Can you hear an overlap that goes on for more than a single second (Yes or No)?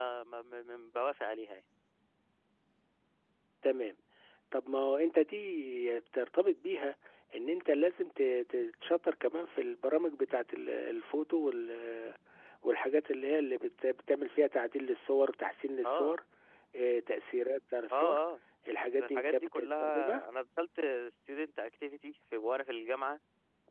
Yes